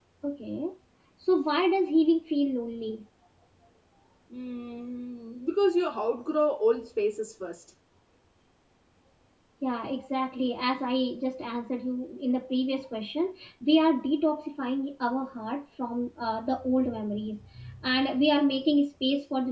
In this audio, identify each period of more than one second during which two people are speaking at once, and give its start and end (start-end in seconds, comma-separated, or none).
none